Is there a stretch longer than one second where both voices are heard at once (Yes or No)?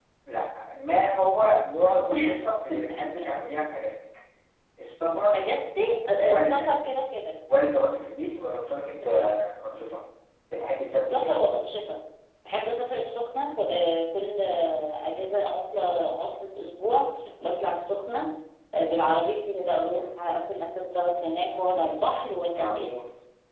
No